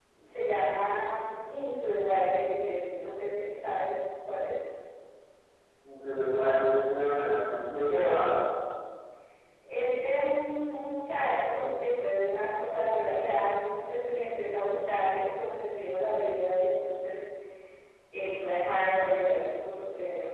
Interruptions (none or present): none